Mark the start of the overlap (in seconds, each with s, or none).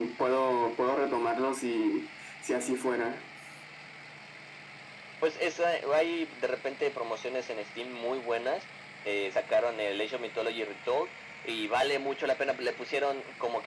none